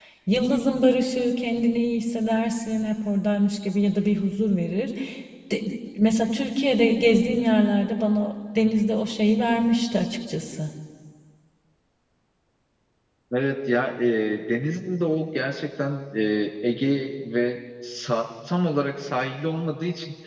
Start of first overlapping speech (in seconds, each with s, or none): none